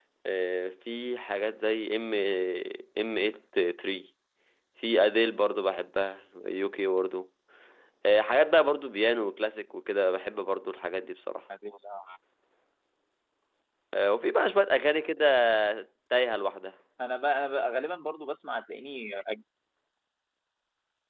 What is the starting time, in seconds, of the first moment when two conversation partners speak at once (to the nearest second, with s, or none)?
none